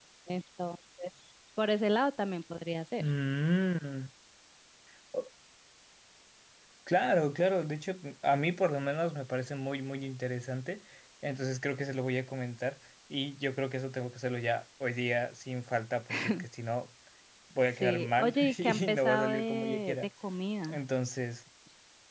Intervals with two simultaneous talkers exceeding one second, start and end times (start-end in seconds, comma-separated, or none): 17.8-20.0